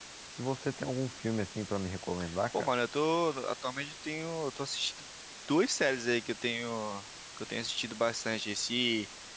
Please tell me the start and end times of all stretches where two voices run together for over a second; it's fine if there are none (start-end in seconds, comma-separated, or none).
none